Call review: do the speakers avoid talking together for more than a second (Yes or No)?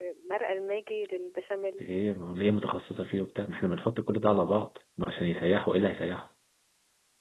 Yes